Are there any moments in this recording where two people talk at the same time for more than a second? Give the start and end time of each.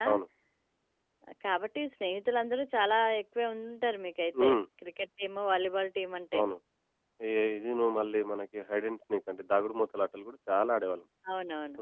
none

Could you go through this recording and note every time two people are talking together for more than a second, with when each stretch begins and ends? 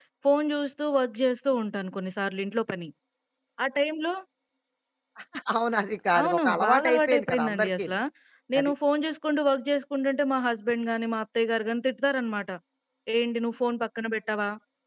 6.2-8.0

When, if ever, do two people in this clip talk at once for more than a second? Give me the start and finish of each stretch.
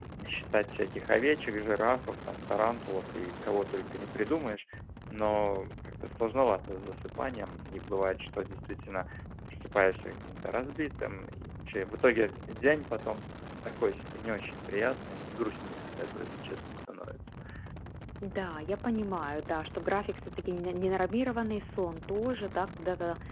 none

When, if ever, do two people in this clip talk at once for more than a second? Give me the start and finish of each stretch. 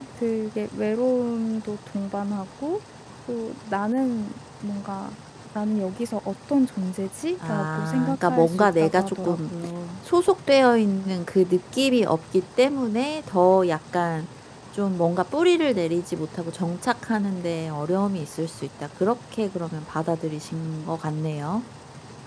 7.5-9.5

